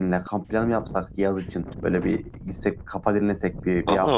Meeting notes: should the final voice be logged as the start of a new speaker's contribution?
Yes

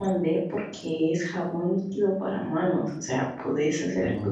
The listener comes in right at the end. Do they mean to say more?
No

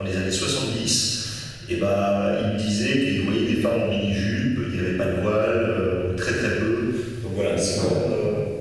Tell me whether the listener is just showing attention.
No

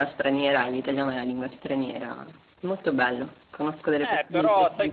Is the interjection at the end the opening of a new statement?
Yes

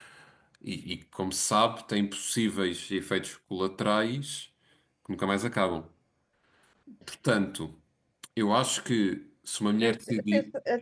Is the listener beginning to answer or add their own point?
Yes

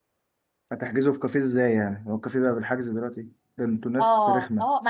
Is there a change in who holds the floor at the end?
Yes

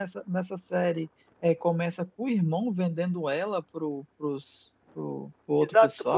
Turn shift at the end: Yes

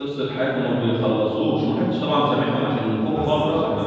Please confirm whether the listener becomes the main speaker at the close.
Yes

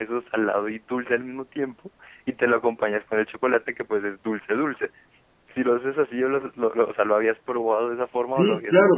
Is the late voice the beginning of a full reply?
Yes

